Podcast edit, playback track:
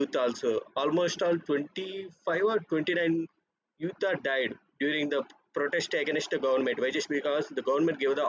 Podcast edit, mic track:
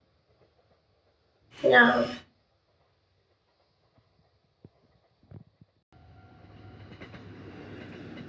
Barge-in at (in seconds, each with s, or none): 1.6 s